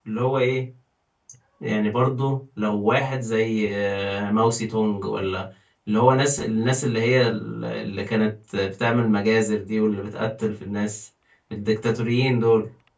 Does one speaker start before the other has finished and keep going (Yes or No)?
No